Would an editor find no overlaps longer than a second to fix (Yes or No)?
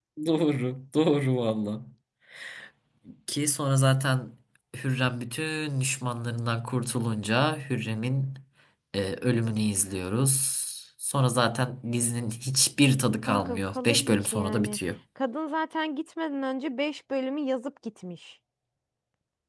No